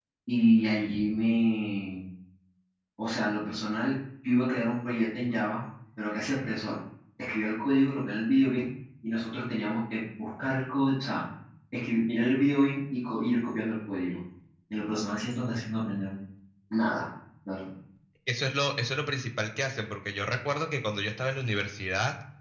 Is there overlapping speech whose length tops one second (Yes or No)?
No